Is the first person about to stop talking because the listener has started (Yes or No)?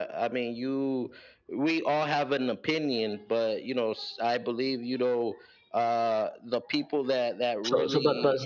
Yes